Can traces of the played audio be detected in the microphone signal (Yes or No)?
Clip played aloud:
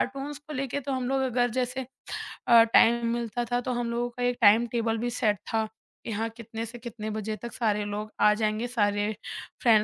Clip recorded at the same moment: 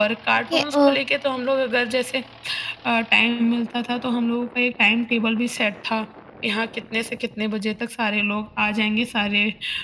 Yes